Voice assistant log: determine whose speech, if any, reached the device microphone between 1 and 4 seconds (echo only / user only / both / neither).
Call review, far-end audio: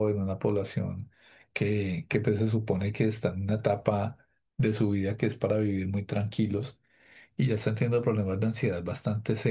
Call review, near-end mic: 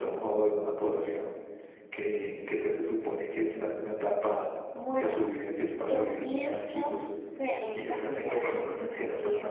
echo only